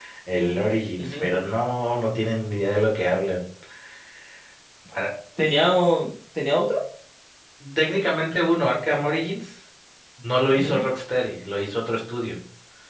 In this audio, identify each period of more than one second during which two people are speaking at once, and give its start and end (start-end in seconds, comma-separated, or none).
none